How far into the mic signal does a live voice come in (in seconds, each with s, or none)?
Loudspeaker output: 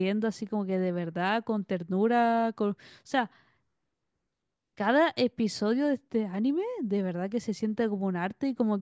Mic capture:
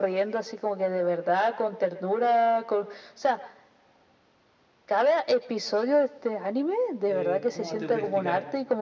7.0 s